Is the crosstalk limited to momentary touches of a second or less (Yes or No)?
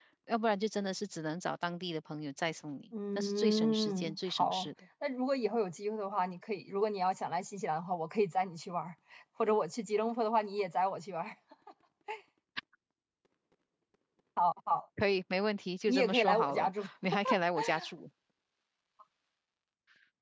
No